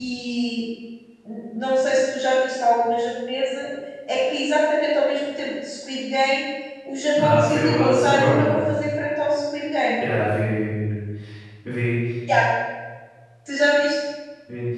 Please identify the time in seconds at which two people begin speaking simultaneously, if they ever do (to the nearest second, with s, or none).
7 s